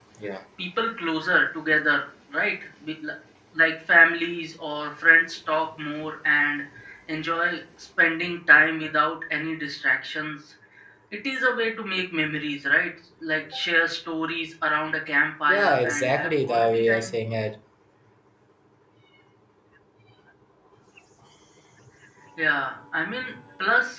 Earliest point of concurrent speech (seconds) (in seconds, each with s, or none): 15.5 s